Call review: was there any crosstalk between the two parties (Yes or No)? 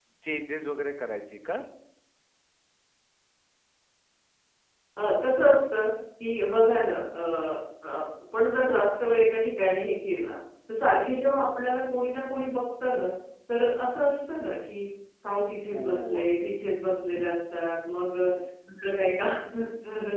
Yes